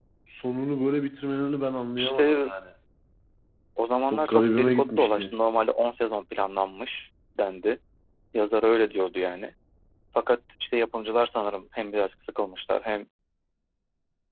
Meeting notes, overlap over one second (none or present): present